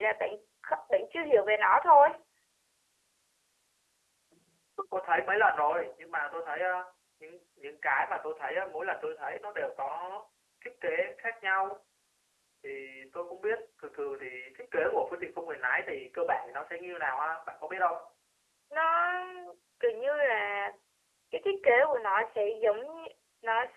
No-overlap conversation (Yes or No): Yes